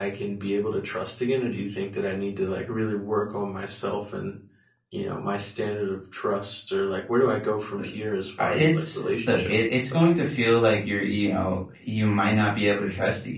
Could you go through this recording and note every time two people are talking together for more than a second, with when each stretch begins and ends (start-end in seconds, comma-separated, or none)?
8.4-10.0